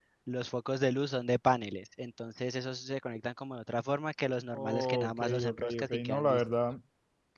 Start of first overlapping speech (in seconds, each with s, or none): 4.5 s